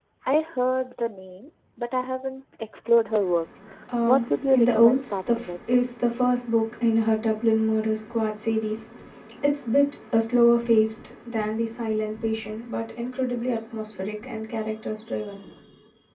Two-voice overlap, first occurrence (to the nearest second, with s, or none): 4 s